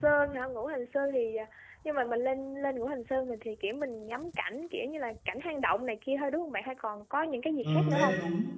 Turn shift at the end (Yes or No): Yes